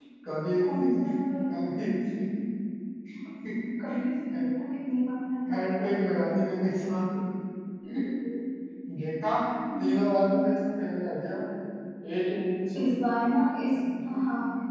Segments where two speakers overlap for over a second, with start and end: none

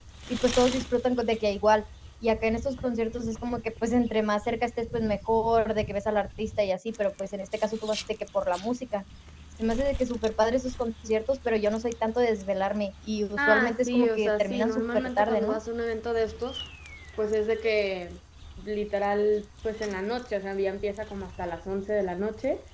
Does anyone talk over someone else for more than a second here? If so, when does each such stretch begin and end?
13.4-15.6

